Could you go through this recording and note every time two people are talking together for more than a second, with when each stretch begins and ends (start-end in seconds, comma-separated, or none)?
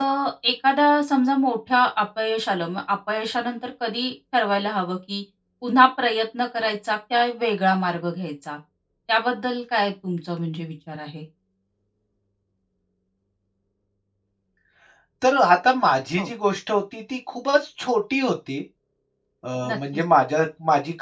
none